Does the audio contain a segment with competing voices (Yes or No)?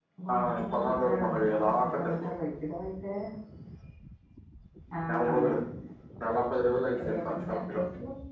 Yes